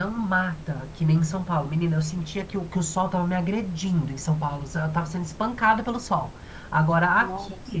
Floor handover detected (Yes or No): No